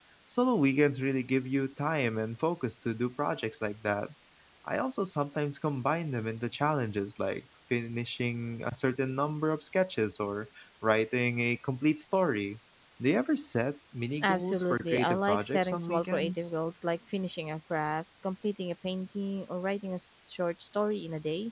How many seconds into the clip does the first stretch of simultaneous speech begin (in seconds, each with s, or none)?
14.2 s